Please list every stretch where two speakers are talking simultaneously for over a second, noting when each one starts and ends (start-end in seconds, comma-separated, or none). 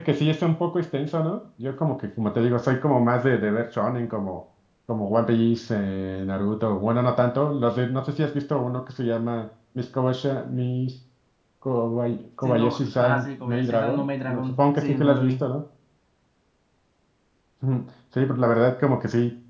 12.4-15.3